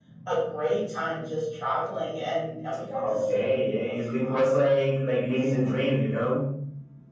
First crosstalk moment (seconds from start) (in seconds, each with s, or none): 3.0 s